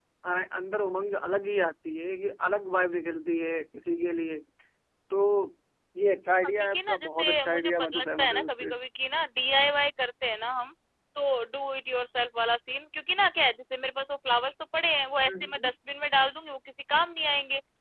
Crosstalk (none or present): present